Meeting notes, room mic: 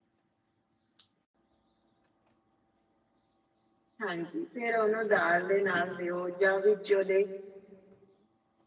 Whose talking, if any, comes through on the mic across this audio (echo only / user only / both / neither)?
user only